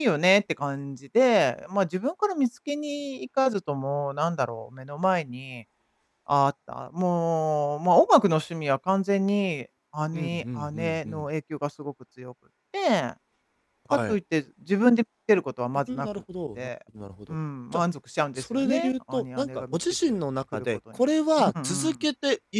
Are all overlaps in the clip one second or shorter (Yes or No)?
No